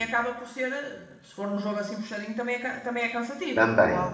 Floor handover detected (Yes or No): Yes